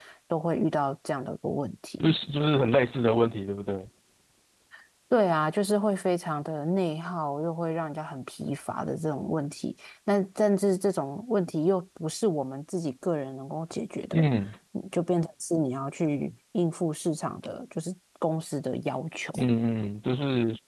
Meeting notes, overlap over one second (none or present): none